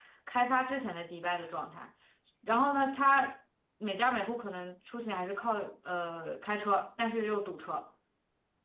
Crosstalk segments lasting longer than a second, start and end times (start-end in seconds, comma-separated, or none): none